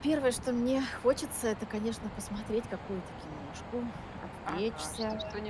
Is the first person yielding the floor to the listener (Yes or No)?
Yes